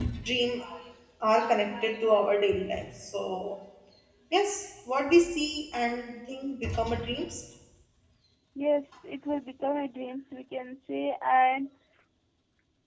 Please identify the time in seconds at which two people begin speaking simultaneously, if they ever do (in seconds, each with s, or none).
none